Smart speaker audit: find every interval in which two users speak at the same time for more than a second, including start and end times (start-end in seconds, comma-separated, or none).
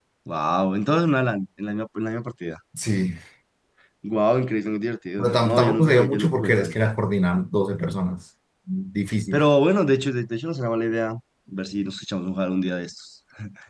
5.2-6.7